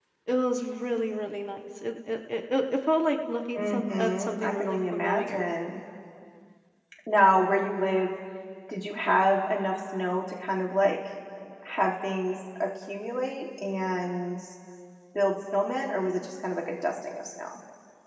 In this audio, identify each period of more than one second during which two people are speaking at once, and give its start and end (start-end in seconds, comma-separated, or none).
3.6-5.5